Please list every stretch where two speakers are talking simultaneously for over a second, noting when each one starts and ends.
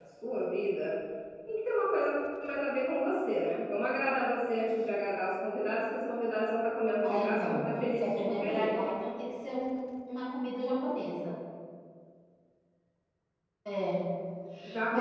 7.0-8.7

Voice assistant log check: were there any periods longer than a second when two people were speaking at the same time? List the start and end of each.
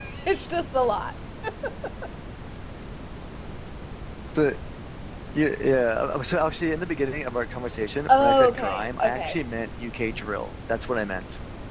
8.1-9.4

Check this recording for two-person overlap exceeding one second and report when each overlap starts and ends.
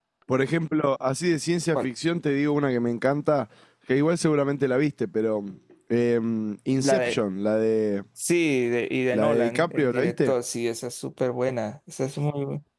9.1-10.3

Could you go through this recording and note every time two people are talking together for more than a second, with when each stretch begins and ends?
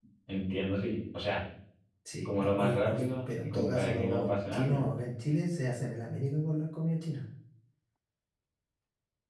2.4-4.9

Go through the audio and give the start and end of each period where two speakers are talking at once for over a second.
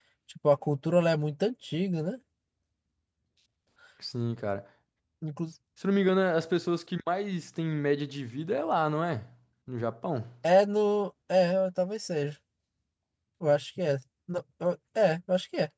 none

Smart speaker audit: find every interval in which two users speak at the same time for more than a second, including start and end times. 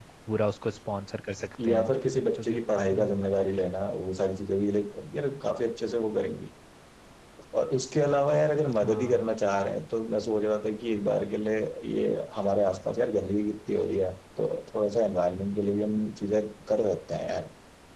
1.7-3.0

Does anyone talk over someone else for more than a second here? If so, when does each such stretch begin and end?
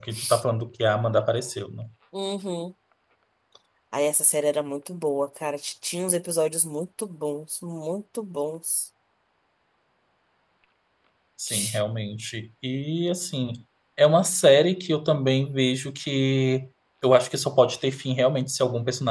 none

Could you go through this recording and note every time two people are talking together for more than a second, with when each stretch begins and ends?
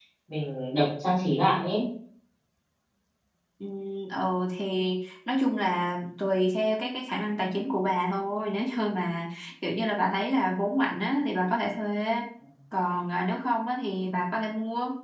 none

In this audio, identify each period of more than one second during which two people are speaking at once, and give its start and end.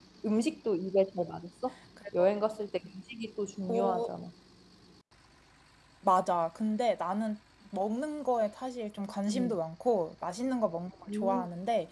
none

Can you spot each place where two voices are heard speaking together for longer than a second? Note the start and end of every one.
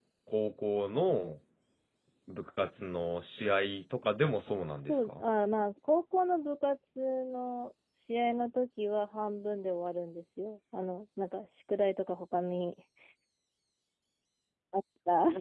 none

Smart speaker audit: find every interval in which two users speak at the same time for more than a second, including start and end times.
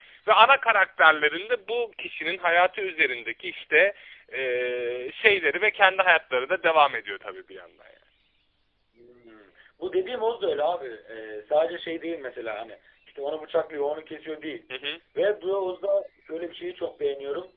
none

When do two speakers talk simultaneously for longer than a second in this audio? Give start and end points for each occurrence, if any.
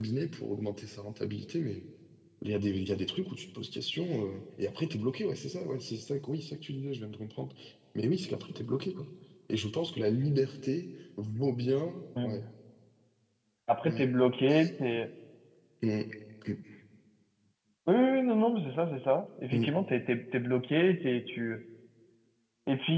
none

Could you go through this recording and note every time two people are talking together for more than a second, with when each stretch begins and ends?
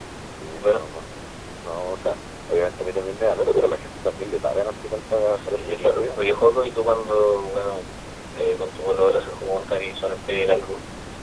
5.3-6.5

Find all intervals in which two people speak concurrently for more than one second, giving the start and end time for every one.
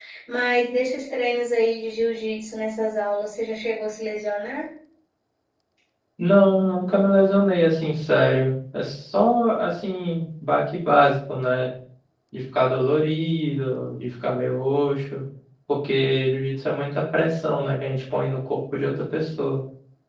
none

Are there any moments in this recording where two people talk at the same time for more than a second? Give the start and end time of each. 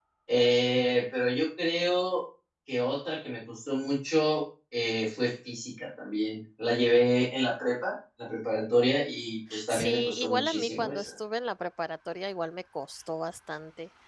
9.7-11.1

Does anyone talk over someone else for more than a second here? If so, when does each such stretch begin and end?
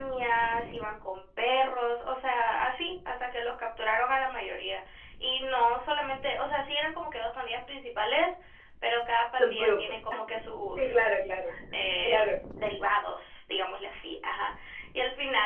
none

